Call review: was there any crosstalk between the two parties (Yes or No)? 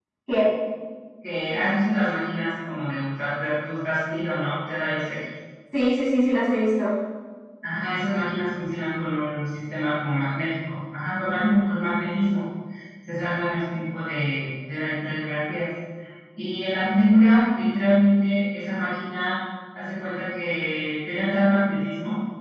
No